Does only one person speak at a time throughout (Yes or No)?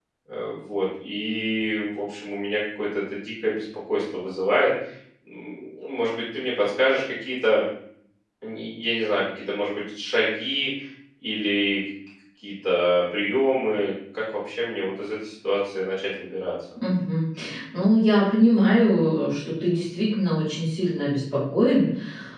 Yes